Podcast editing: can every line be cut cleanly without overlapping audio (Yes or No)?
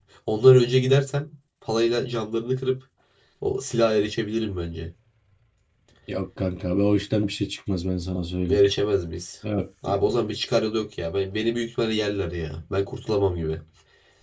Yes